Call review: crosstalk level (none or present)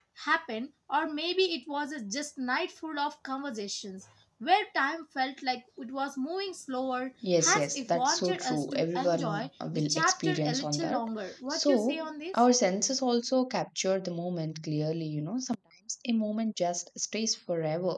present